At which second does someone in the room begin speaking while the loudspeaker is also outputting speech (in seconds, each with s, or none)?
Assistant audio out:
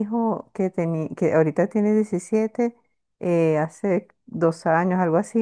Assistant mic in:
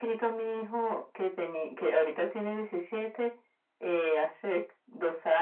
none